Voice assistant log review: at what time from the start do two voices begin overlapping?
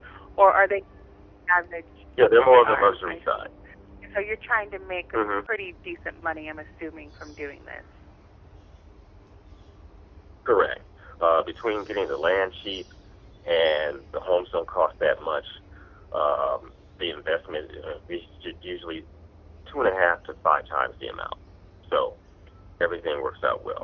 2.2 s

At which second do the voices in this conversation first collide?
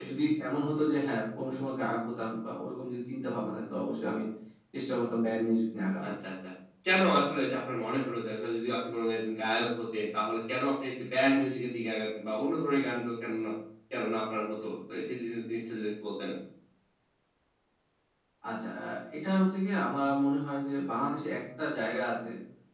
none

